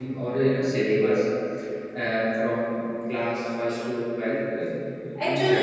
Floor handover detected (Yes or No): Yes